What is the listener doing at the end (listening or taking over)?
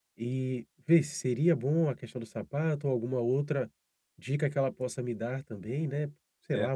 taking over